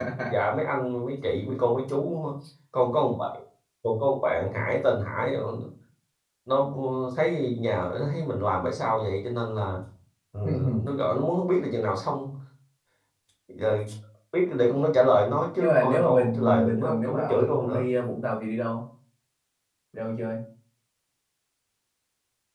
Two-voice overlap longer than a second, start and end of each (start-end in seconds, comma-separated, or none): 15.6-17.8